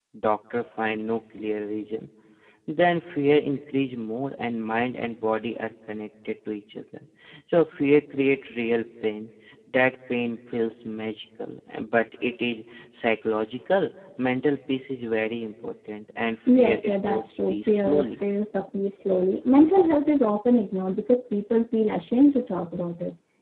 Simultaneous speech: Yes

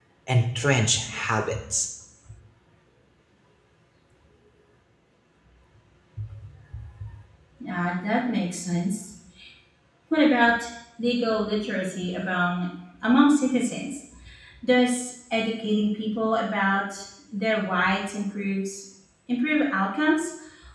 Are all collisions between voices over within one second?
Yes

